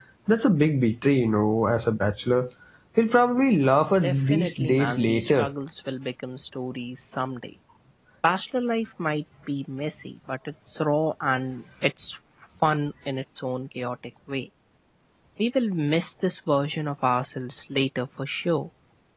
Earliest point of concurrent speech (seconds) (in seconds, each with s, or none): 4.0 s